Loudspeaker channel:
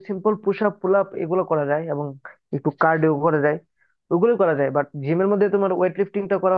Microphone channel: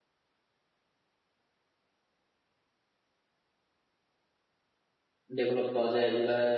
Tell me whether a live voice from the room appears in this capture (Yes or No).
Yes